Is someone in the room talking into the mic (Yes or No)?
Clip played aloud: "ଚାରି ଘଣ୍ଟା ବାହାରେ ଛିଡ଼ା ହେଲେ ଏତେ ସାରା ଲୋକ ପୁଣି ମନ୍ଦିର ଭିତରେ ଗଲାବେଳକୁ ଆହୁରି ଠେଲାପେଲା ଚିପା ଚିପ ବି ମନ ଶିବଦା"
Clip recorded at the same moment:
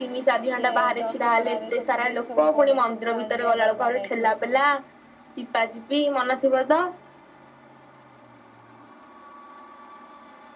Yes